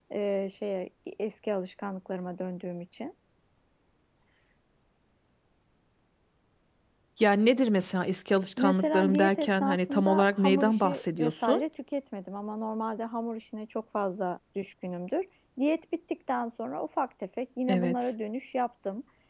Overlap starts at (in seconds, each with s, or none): 8.6 s